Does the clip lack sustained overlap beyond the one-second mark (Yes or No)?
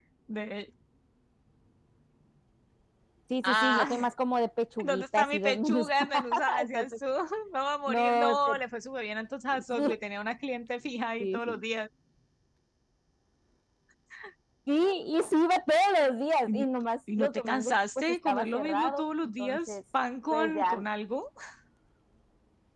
No